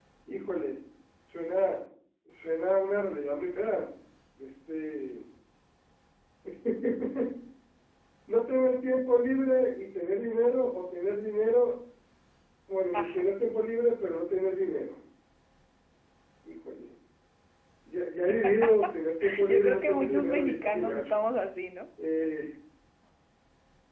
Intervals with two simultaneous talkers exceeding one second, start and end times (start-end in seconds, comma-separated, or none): 19.5-21.2